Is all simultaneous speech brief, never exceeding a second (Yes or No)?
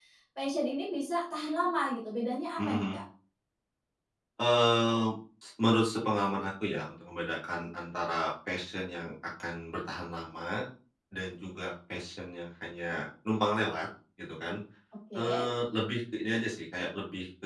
Yes